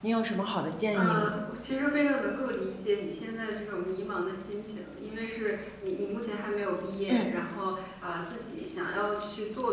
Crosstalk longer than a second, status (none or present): none